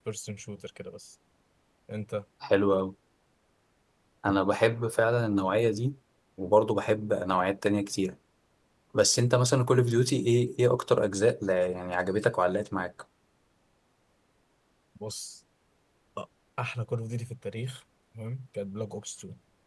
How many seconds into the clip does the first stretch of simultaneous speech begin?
none

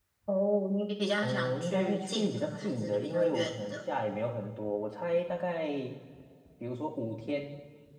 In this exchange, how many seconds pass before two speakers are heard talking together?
1.2 s

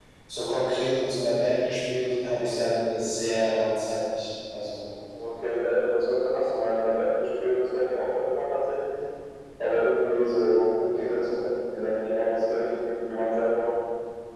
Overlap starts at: none

